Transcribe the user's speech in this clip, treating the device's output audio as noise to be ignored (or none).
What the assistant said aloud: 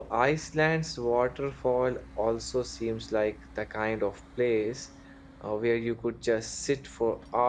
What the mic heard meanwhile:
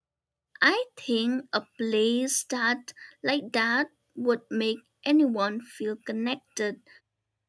I think a place that like that would make anyone feel connected